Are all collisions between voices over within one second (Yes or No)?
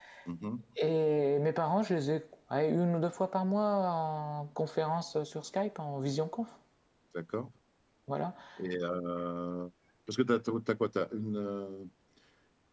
Yes